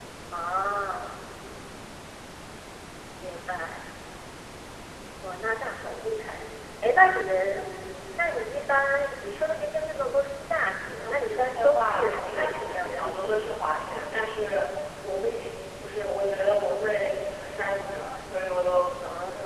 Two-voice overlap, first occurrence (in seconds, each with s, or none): 11.0 s